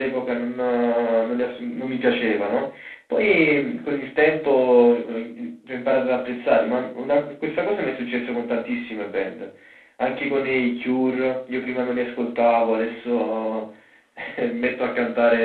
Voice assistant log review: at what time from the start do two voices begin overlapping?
none

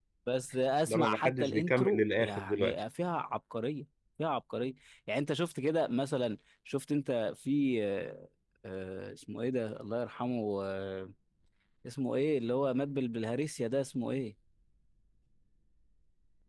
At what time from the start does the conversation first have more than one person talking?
0.9 s

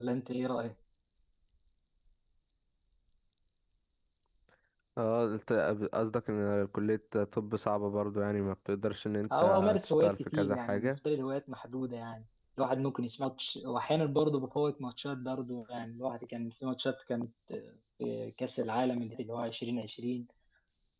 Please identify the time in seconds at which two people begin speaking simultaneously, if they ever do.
9.2 s

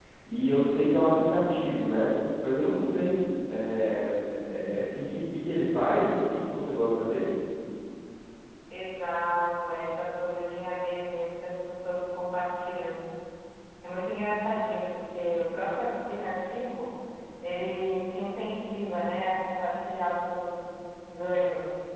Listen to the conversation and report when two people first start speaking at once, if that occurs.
none

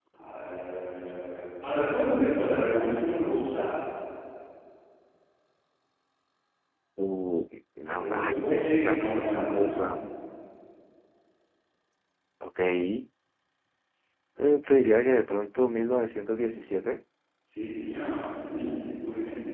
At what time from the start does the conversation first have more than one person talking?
8.0 s

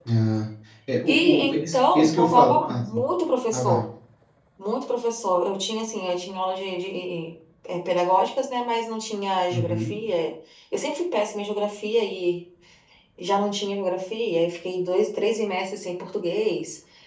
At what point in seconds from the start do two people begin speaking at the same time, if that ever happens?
1.1 s

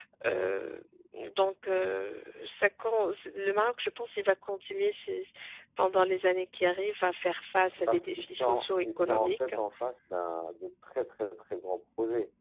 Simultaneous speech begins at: 7.9 s

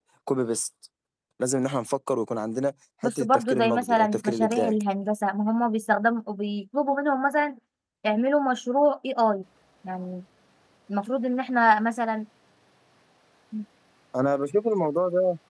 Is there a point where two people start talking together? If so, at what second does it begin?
3.0 s

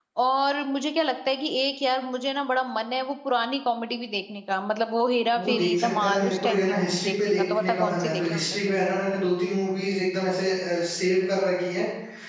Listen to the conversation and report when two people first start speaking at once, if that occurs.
5.3 s

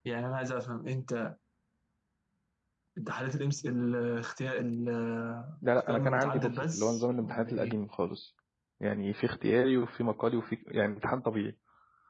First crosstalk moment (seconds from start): 5.9 s

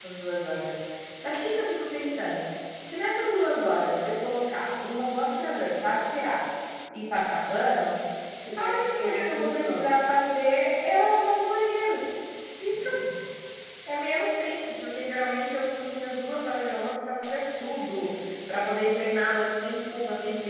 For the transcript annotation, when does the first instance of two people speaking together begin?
8.6 s

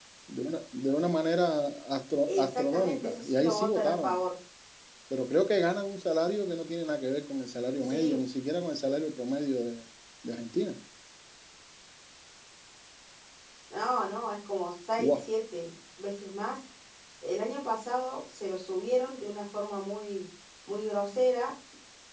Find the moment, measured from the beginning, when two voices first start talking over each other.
2.3 s

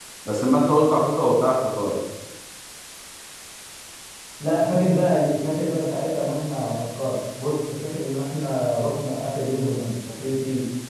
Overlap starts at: none

